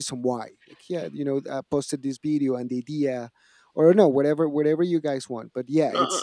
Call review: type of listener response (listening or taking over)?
taking over